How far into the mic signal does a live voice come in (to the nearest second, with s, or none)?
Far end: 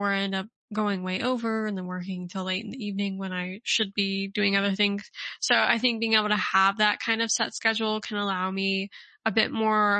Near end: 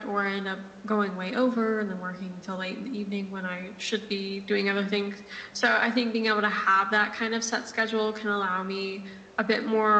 none